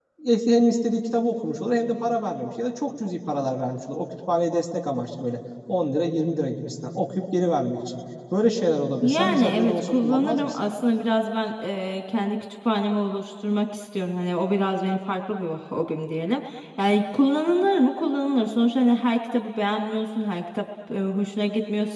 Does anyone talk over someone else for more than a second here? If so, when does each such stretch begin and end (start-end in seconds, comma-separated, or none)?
9.0-10.6